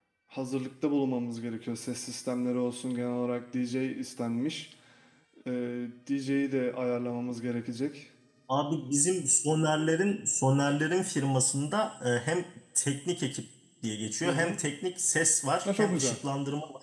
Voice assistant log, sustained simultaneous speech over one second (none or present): none